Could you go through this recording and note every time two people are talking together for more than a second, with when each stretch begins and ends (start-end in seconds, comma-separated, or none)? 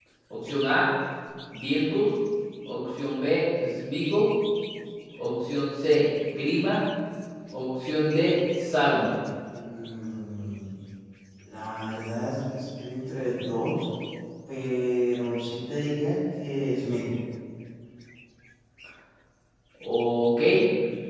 none